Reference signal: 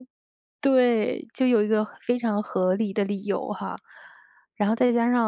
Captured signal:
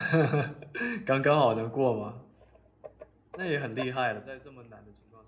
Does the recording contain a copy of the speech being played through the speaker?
No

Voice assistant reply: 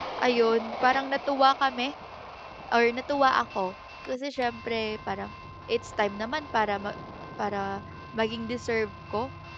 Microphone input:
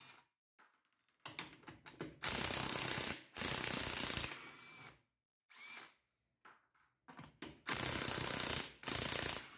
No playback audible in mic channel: Yes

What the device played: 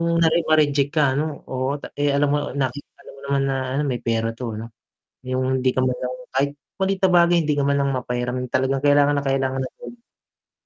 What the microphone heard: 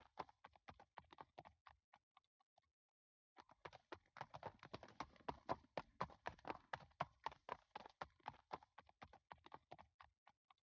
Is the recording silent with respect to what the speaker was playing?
Yes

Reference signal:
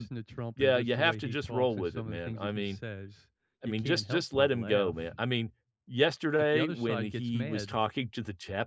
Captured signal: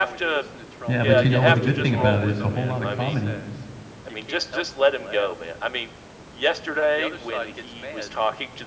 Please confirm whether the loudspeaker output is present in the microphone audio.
Yes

